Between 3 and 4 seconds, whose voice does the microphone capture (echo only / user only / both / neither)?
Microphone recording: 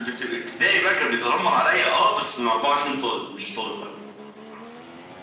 echo only